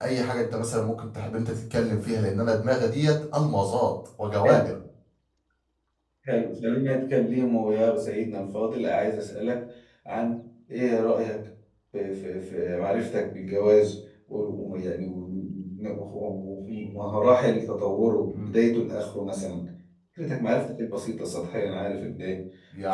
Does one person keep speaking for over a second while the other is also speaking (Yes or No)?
No